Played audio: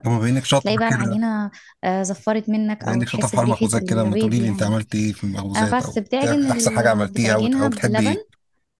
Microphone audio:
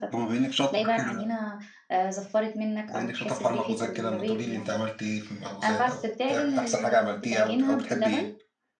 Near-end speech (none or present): none